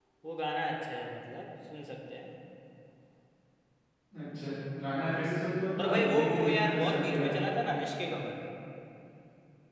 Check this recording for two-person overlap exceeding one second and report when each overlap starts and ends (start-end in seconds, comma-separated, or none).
5.8-7.4